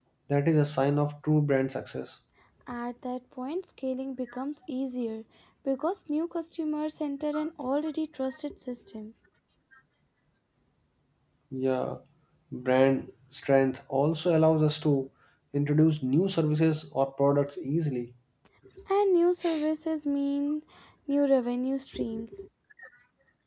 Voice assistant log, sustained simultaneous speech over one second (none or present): none